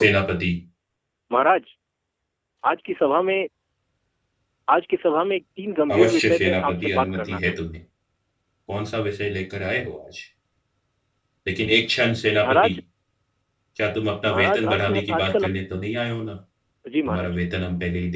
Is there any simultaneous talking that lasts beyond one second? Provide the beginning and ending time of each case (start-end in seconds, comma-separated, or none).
5.9-7.4, 14.3-15.5